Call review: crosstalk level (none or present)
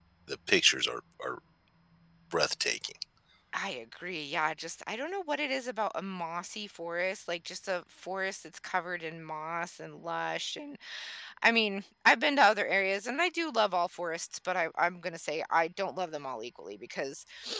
none